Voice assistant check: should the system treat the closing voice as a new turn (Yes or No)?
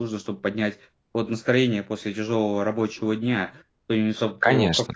No